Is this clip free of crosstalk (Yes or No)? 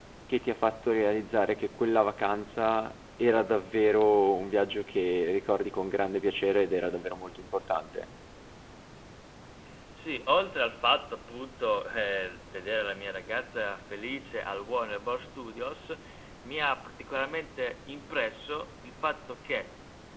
Yes